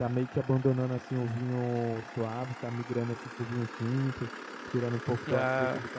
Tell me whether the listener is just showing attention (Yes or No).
Yes